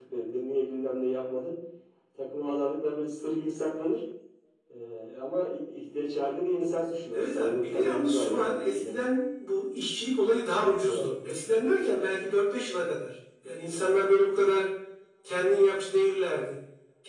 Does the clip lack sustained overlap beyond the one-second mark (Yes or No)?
No